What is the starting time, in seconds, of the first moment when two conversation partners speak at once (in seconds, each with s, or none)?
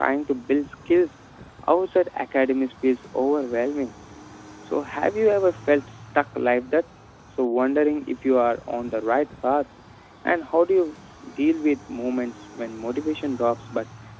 none